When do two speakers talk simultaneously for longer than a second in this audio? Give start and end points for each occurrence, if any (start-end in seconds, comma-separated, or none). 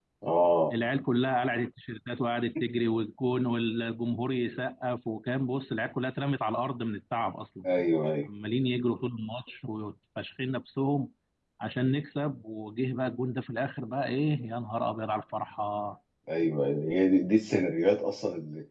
none